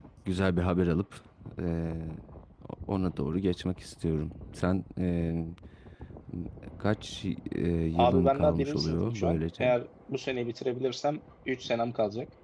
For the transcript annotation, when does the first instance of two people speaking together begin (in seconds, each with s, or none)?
8.0 s